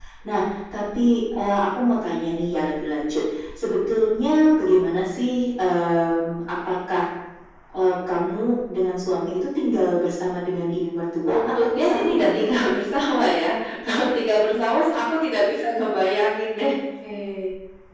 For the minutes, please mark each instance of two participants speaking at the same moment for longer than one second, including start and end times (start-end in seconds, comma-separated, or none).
11.3-12.5